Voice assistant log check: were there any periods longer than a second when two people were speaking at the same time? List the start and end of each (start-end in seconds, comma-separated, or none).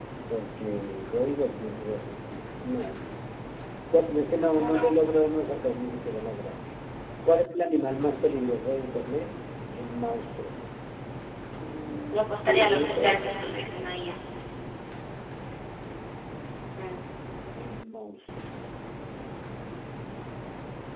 12.1-13.4